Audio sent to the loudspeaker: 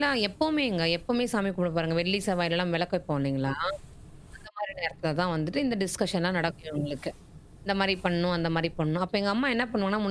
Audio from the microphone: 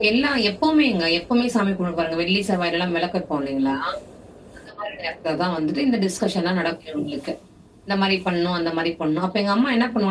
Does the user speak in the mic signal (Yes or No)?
No